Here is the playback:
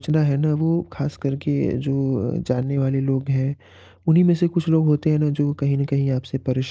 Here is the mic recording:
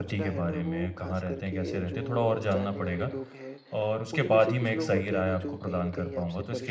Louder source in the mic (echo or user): user